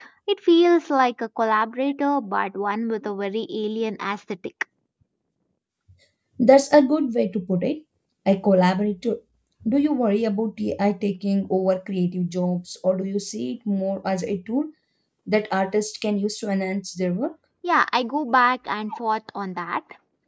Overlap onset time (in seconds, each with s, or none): none